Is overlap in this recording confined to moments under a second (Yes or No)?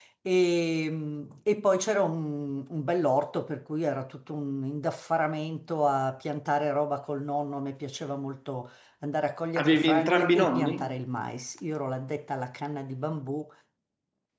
No